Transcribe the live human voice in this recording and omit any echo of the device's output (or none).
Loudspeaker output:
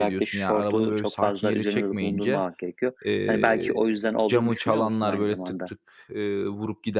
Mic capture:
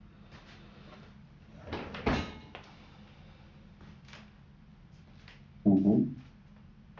Hı hı.